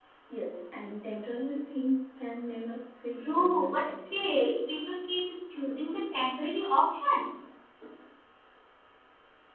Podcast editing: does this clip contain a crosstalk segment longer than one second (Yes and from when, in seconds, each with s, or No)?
Yes, from 3.2 s